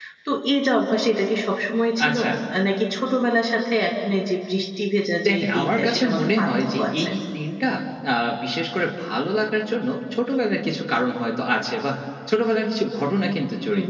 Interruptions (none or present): present